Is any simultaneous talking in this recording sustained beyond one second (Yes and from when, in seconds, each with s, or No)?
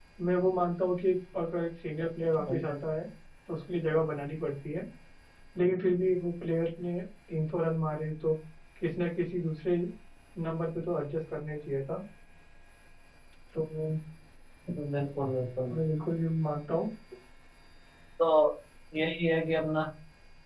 No